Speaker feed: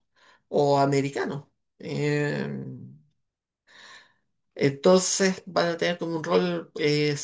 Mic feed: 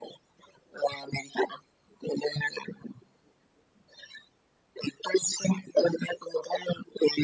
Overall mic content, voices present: echo only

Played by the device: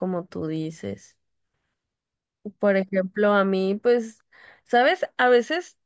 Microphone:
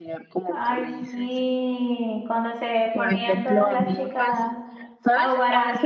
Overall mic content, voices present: both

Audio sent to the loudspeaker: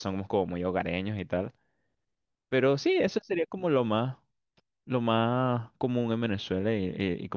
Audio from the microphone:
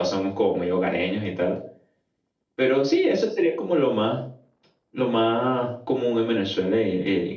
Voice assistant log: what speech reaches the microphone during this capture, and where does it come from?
echo only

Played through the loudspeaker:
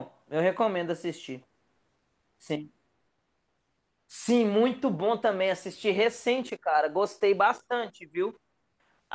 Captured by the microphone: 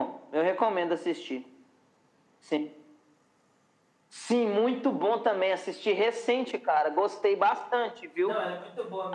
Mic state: both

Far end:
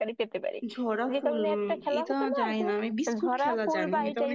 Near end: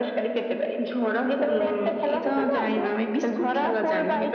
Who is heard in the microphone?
echo only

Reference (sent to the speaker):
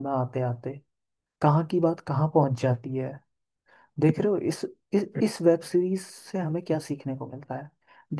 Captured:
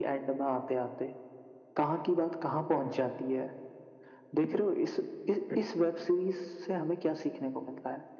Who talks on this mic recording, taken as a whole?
echo only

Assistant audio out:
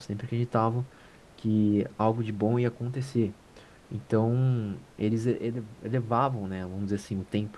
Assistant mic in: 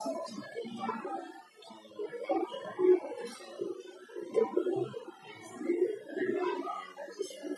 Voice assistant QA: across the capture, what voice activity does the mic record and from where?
echo only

